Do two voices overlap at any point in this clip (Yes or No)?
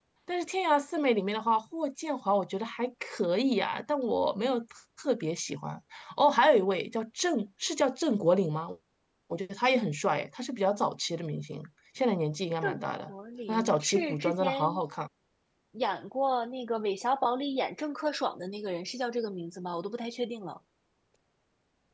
Yes